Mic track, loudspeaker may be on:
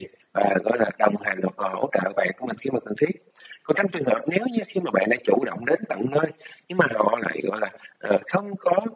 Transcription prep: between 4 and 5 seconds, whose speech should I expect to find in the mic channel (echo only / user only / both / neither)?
echo only